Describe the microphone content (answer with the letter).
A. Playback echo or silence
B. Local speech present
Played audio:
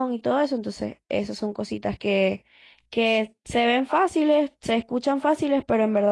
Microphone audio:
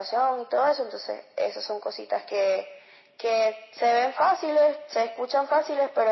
A